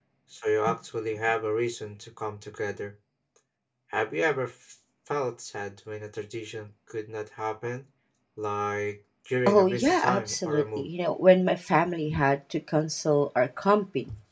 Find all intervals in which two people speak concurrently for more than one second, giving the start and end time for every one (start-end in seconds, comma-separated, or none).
9.5-10.8